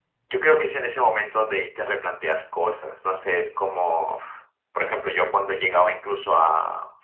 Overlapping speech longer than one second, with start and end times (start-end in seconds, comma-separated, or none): none